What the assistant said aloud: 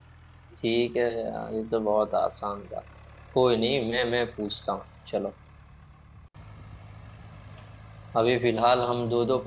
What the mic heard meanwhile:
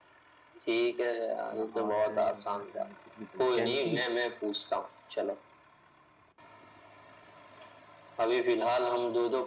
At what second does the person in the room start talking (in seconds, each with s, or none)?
1.6 s